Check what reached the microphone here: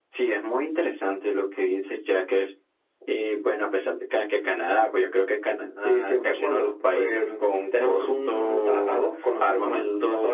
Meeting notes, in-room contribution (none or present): none